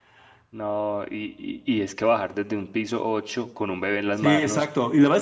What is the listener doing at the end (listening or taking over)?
taking over